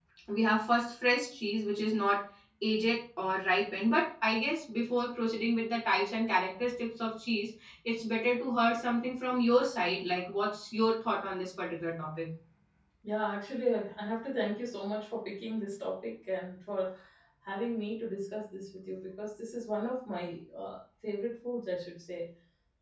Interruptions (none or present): none